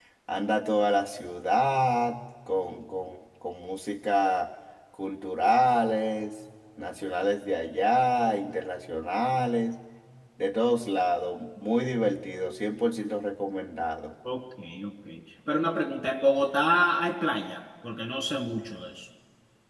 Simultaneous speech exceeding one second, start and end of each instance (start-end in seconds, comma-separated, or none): none